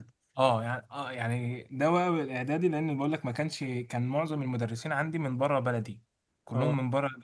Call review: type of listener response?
listening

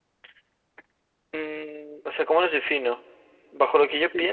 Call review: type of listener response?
taking over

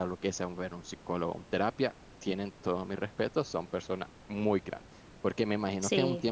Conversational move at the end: listening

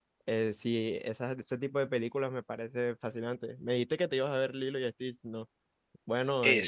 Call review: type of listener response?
taking over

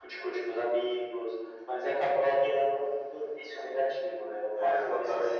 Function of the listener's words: taking over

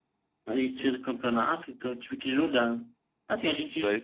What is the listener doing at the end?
listening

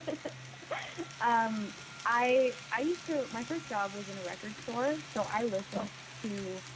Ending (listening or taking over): listening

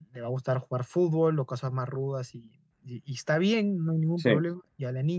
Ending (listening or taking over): listening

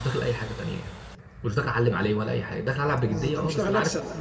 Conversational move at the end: taking over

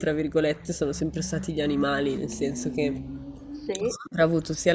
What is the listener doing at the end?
listening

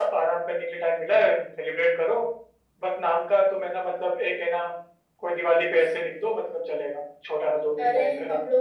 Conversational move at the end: taking over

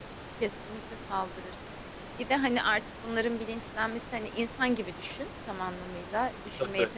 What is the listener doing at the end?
listening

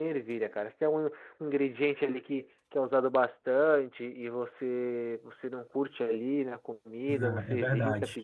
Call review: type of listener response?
taking over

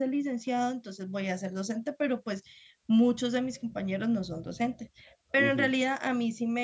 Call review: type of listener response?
listening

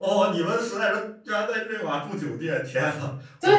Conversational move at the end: taking over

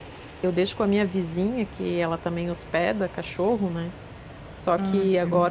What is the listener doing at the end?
listening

